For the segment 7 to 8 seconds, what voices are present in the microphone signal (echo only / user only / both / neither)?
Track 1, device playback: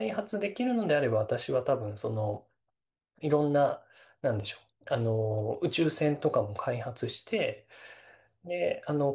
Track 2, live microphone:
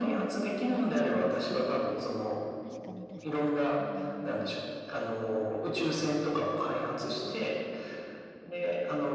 both